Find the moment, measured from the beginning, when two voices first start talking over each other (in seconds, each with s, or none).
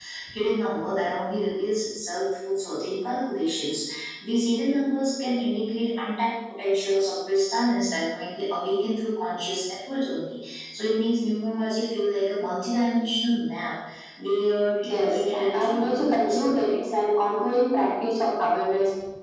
14.9 s